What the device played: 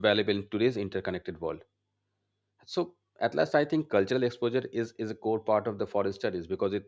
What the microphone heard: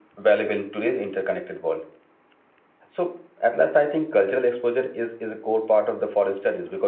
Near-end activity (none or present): none